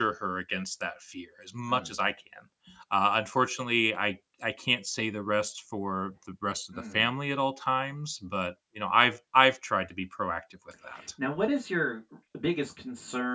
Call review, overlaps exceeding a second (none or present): none